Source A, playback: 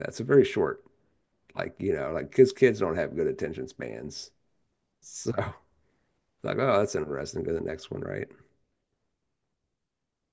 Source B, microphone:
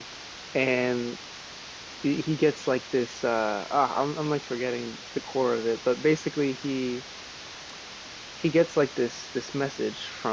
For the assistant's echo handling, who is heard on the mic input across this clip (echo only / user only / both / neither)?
user only